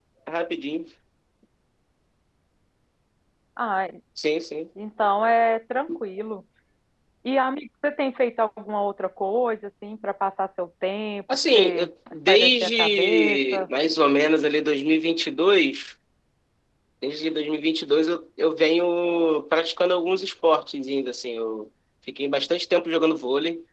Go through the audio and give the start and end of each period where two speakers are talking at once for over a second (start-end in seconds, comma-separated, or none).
11.6-13.7